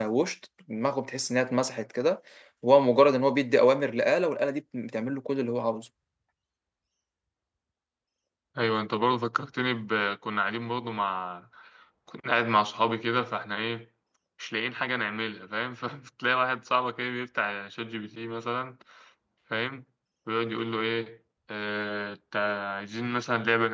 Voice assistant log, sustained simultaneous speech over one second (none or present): none